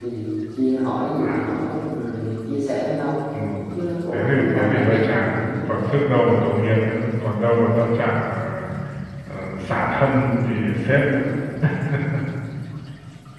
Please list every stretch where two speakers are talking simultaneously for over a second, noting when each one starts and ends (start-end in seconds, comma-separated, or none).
4.1-5.7